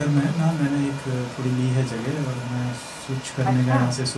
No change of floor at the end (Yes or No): Yes